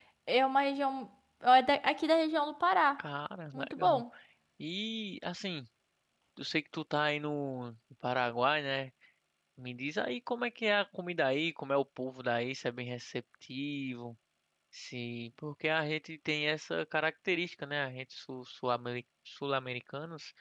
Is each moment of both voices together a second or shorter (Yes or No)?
Yes